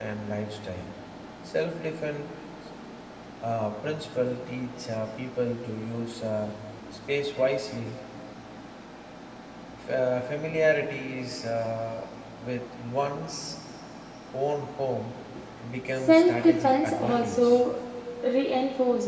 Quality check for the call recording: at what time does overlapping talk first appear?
16.1 s

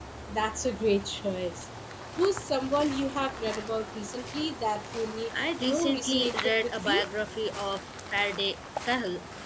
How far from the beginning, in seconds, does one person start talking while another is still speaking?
5.3 s

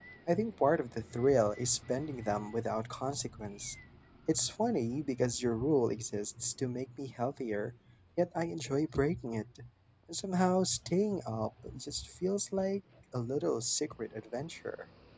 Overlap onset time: none

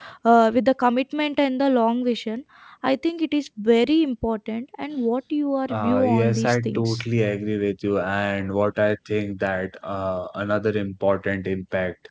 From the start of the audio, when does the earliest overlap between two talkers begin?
5.7 s

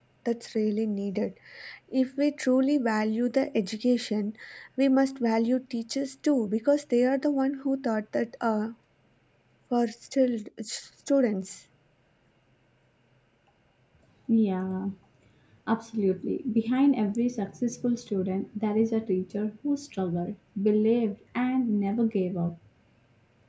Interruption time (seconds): none

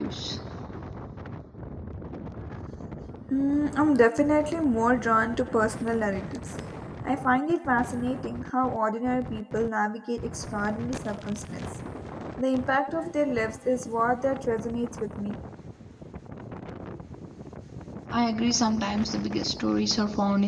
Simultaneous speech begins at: none

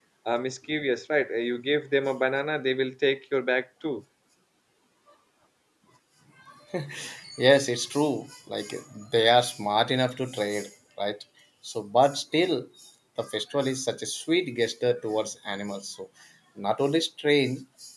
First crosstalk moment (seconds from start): none

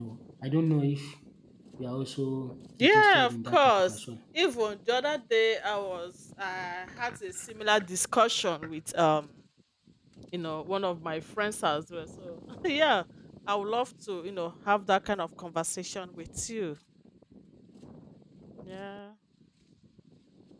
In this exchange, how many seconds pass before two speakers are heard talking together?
2.8 s

